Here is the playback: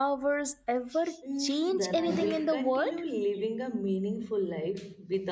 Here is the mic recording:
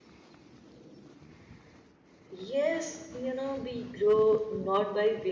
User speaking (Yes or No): Yes